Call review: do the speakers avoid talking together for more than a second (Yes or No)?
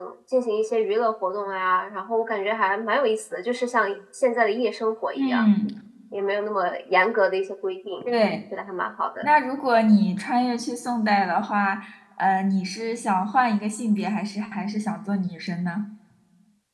Yes